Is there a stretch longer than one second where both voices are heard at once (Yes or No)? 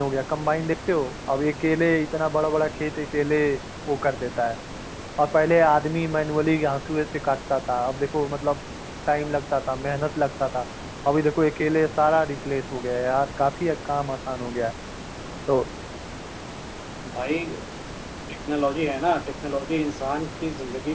No